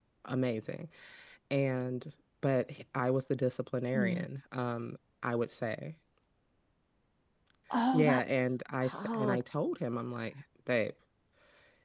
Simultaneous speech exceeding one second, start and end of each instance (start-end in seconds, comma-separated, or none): 7.9-9.4